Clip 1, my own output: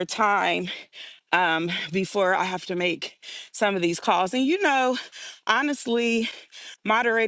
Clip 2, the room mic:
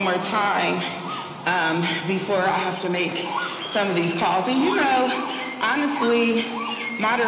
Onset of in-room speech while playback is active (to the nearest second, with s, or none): none